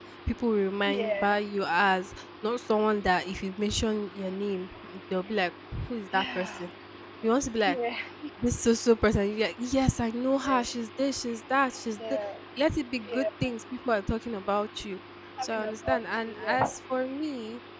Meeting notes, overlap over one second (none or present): present